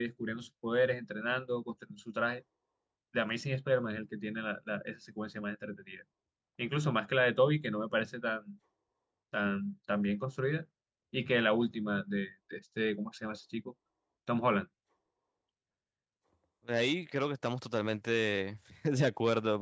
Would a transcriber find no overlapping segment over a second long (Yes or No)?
Yes